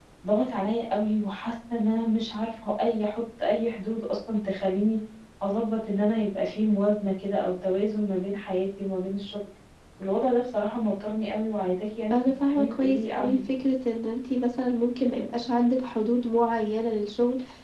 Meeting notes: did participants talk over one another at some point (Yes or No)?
Yes